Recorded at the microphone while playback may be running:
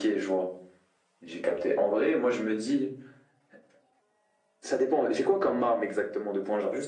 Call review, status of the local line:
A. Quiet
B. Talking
A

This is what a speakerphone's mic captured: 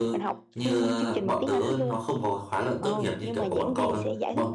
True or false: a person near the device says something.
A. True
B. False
A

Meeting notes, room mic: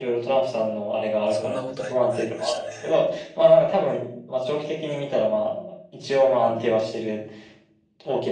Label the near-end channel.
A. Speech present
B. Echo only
A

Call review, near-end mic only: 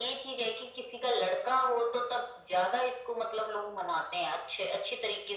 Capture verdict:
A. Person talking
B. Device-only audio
B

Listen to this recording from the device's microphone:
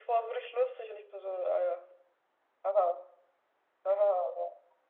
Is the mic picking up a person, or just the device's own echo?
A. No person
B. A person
A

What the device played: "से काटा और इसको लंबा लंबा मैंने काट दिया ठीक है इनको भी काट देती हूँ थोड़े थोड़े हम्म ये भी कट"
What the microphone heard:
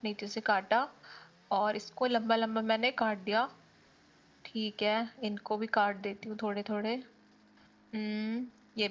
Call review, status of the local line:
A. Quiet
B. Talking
A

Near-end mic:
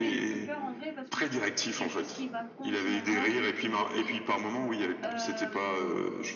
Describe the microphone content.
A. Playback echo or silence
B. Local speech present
B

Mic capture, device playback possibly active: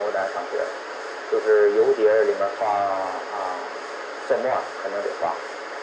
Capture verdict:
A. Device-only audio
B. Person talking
A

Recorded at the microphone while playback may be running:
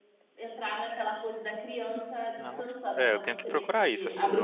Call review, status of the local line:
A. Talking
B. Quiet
A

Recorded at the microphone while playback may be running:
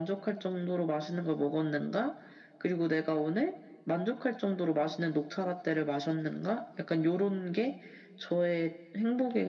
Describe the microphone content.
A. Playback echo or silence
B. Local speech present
A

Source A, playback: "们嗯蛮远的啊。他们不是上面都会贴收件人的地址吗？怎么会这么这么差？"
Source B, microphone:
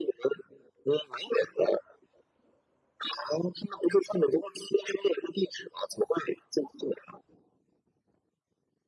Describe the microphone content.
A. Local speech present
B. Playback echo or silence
B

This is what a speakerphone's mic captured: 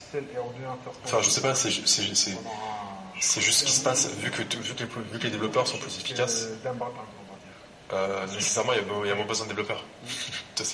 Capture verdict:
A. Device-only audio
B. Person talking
B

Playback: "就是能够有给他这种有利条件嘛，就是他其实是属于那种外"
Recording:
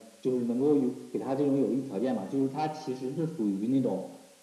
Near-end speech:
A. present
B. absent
B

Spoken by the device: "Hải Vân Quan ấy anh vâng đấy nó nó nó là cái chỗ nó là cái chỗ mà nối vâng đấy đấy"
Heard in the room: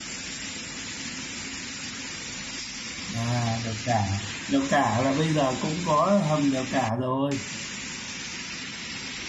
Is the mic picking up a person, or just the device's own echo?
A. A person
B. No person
A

